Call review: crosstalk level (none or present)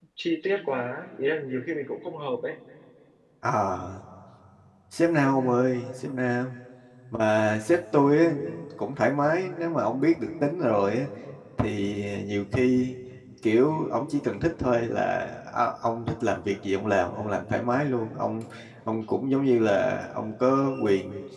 none